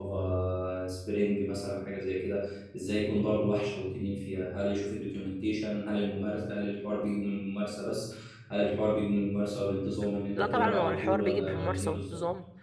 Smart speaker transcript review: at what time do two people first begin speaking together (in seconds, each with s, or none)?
10.3 s